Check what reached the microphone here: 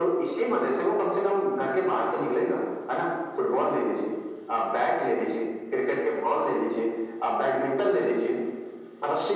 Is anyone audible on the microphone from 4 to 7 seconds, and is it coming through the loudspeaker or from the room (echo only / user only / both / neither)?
echo only